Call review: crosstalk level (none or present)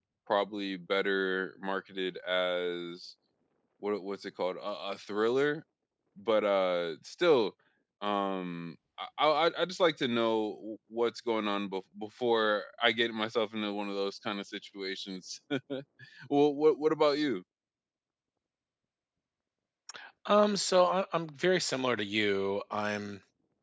none